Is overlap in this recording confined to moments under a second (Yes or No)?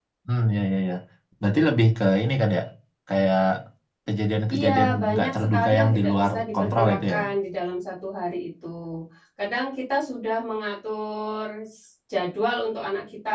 No